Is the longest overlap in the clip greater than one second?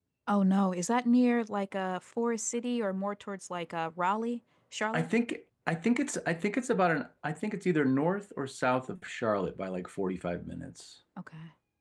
No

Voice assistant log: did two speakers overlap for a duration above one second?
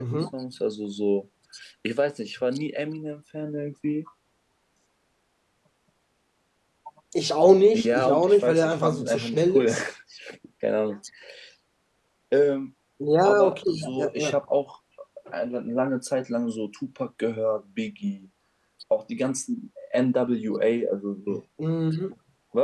Yes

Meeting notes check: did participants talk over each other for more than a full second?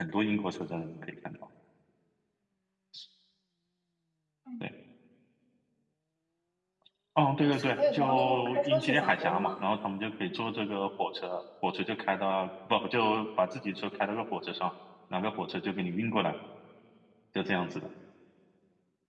Yes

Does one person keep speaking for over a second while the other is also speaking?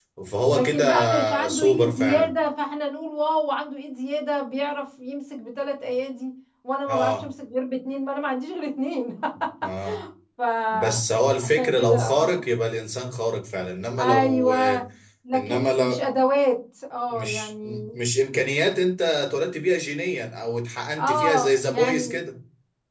Yes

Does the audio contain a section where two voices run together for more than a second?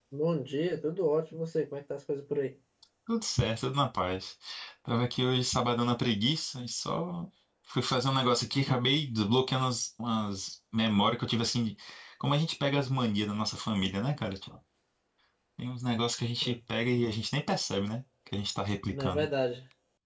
No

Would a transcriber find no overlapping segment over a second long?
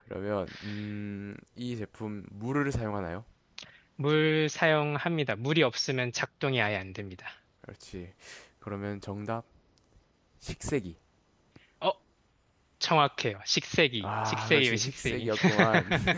No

